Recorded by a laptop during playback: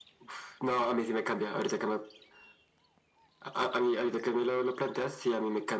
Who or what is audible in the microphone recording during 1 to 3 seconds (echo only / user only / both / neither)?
echo only